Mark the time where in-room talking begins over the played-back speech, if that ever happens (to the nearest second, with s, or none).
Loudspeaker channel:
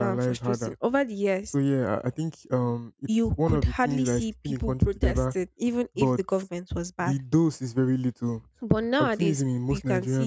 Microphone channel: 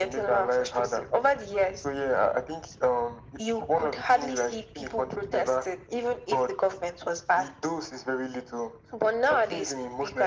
none